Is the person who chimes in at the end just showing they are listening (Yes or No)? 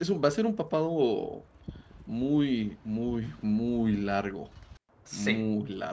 Yes